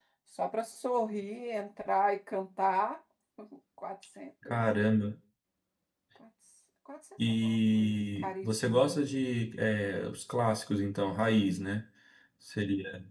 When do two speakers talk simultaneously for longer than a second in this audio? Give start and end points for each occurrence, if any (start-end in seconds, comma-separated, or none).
7.4-9.0